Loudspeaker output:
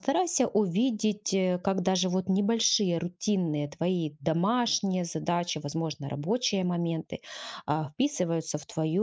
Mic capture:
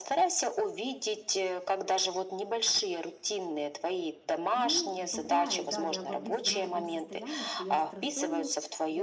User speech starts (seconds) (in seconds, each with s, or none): 4.5 s